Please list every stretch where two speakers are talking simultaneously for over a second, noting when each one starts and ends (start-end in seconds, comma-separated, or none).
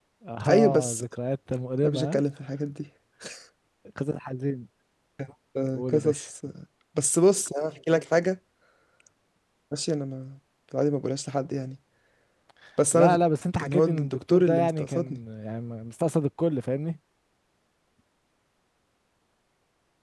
13.6-15.2